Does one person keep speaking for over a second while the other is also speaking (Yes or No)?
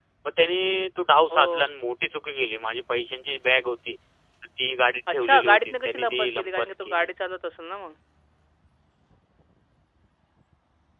Yes